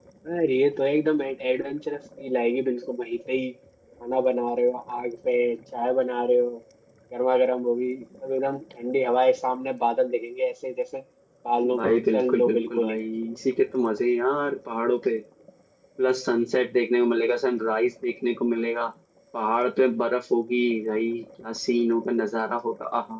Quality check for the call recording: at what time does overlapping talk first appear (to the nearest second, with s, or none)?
12 s